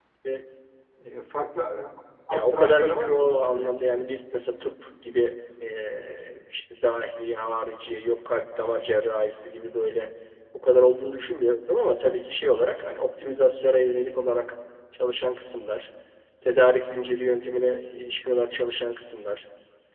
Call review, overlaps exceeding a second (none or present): present